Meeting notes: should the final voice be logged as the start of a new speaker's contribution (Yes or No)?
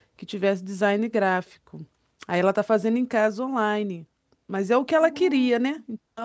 No